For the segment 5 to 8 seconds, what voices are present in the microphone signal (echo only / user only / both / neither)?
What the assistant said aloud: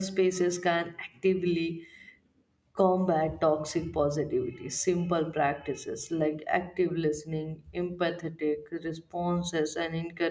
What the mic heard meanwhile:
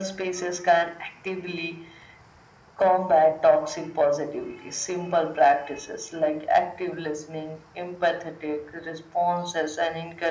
echo only